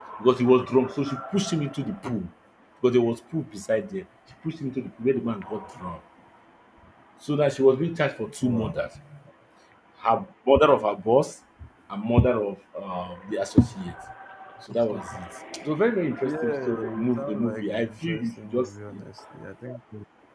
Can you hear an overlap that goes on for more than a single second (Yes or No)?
Yes